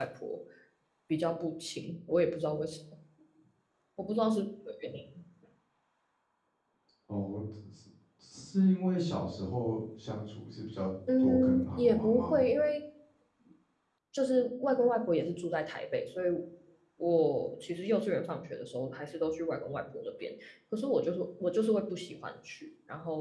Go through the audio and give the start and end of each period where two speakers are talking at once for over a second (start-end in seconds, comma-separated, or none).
11.2-12.4